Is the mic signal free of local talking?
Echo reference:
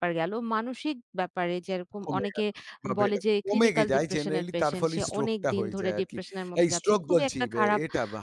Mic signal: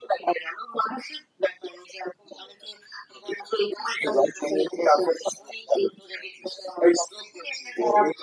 Yes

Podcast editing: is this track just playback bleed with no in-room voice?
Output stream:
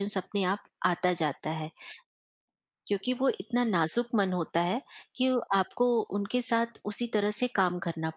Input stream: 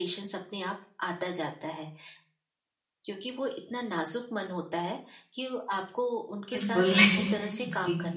No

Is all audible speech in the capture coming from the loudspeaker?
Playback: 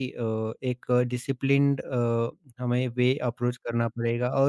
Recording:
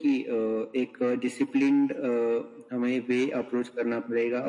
Yes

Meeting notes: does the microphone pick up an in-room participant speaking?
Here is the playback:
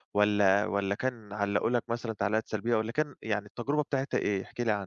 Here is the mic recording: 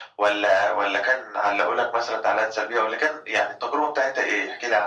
No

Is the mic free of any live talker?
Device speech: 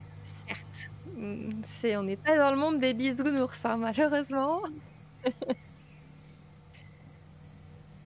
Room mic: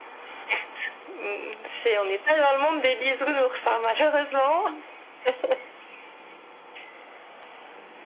Yes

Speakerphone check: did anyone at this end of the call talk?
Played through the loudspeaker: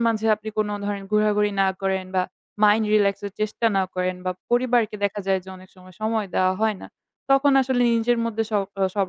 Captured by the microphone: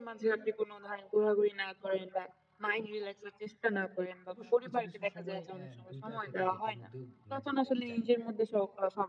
Yes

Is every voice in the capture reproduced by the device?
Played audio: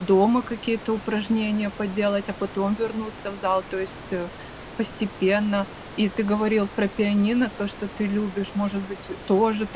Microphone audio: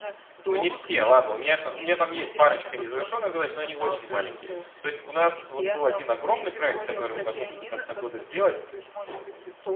No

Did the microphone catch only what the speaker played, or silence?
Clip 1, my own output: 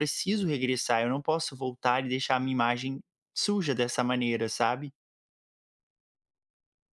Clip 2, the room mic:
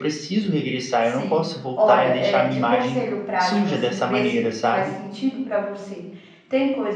No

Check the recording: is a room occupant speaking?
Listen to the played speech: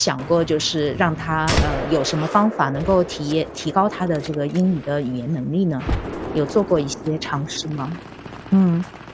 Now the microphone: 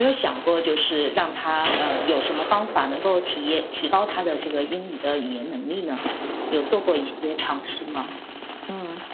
No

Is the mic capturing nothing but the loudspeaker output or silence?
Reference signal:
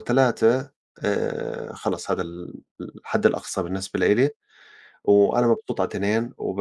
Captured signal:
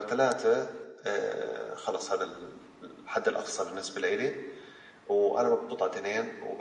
Yes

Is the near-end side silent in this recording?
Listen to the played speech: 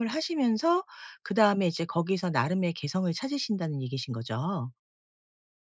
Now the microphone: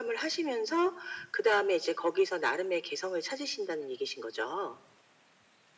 Yes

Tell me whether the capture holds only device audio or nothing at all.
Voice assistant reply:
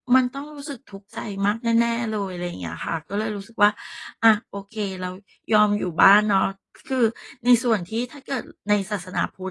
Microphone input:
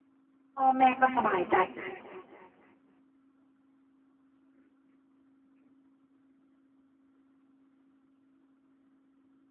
No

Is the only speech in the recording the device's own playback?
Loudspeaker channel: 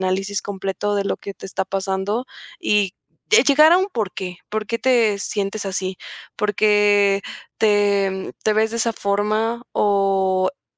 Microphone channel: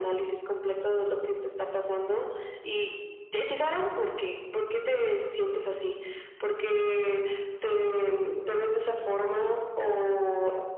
Yes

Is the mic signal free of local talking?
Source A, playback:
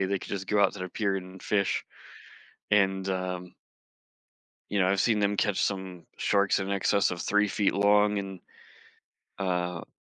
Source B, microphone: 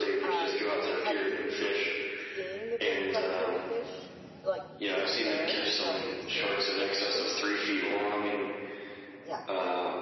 No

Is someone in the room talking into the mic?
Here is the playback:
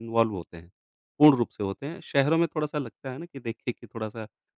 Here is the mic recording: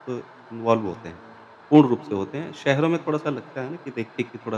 No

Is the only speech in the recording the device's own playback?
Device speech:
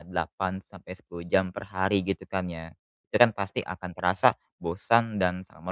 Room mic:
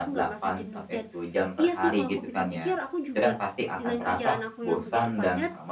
No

